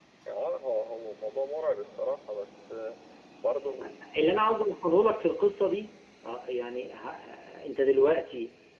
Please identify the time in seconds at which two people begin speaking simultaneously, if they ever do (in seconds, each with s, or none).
none